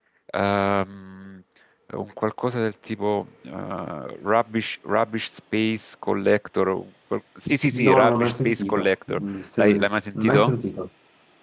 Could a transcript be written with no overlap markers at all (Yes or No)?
No